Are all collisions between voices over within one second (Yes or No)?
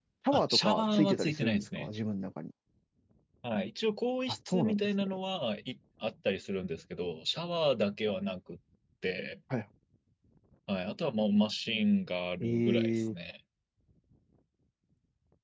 No